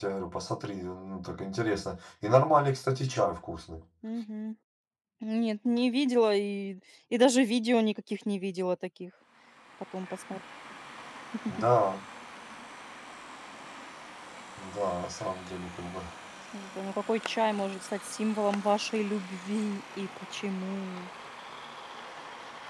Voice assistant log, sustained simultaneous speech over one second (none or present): none